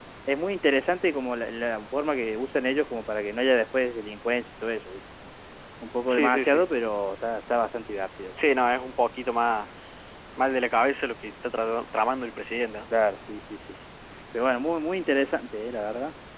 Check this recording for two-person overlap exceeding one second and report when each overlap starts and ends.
none

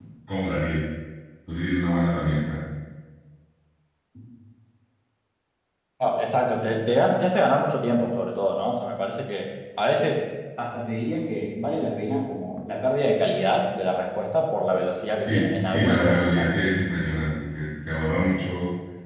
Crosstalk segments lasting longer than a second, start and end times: 15.2-16.5

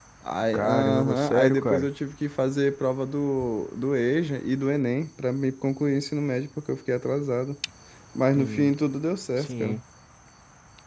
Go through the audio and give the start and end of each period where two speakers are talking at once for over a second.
0.5-1.9

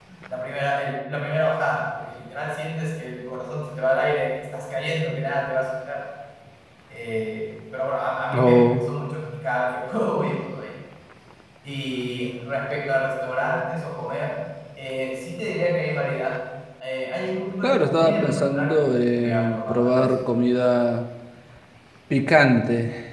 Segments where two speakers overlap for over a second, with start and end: 17.6-20.1

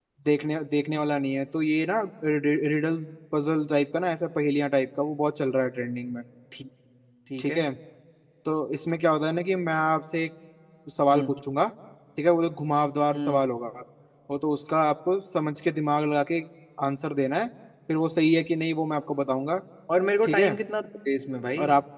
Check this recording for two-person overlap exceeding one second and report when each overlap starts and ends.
none

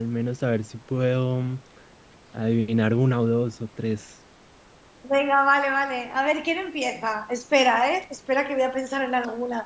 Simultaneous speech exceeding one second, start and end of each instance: none

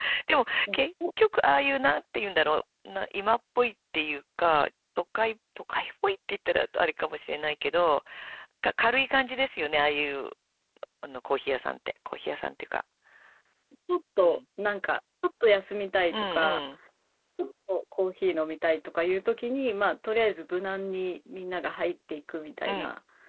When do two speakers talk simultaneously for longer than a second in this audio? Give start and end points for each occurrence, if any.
none

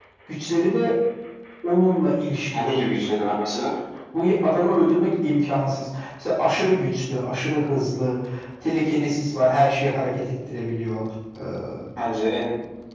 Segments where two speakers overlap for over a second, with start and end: none

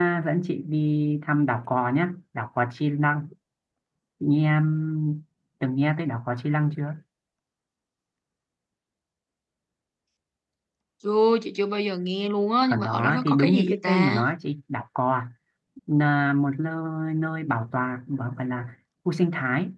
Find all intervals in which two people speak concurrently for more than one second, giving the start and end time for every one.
12.7-14.2

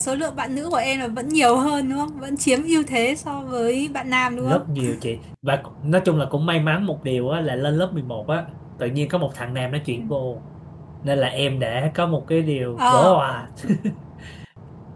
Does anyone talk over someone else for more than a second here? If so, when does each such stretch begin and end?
none

